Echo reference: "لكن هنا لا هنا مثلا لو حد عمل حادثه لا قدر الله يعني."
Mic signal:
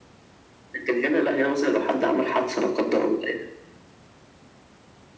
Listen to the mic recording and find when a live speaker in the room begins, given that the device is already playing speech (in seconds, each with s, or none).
none